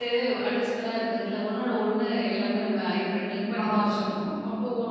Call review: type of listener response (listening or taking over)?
listening